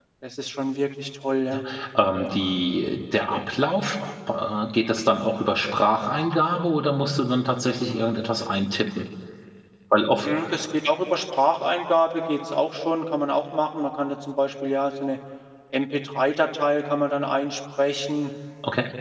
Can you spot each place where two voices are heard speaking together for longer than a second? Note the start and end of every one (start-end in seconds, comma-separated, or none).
none